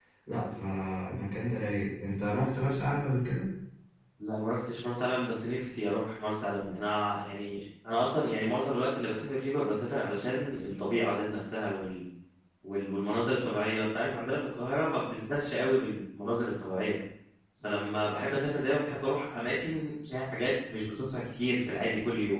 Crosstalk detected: No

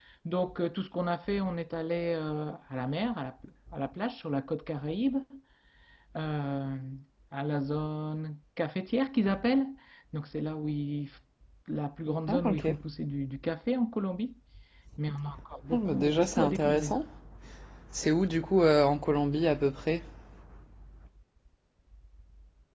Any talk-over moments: Yes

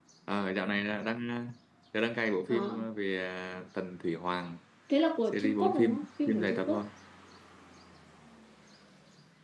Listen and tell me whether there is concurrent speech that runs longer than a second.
Yes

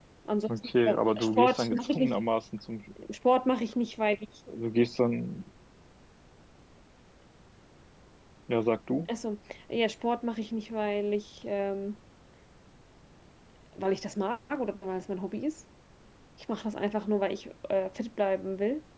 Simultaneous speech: Yes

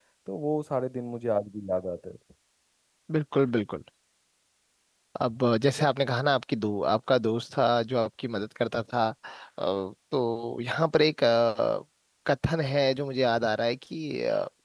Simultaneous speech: No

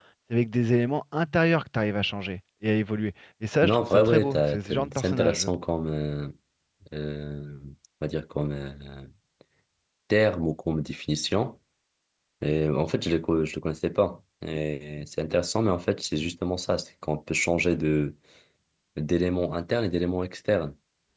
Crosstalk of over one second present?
Yes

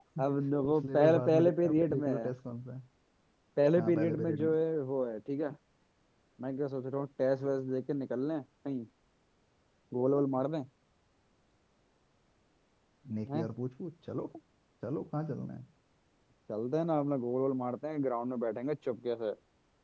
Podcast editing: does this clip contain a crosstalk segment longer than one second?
Yes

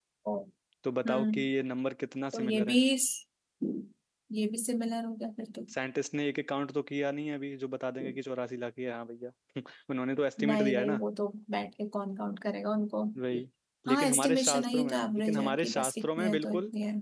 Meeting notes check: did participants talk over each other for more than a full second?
Yes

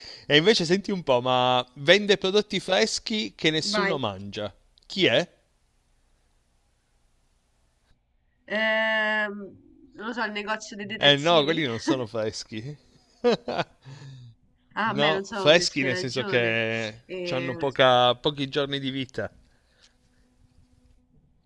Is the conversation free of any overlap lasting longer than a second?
No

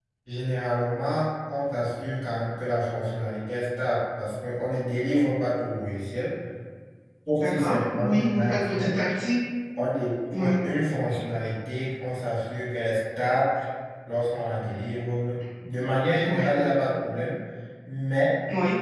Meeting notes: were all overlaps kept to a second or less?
No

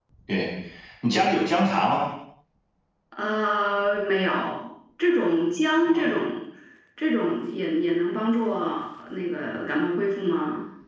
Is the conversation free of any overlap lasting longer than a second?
Yes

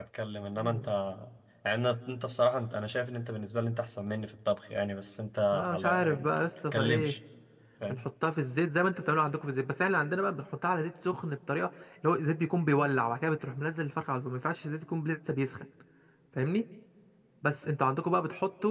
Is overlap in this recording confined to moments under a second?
No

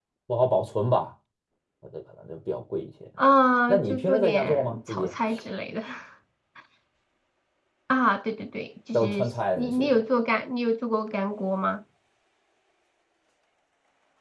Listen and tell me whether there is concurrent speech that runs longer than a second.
Yes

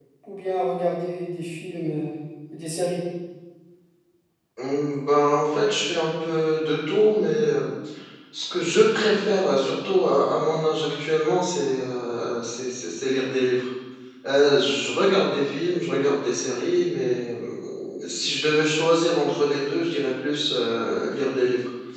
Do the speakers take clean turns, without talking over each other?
Yes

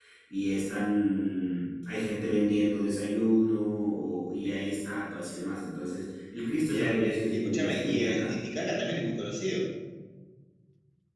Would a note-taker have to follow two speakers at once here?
Yes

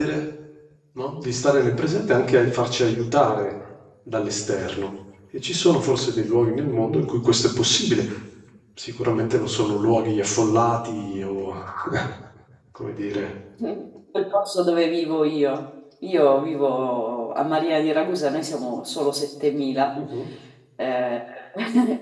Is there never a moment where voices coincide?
Yes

